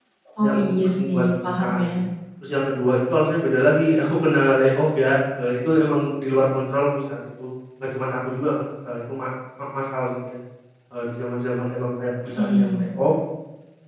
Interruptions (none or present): present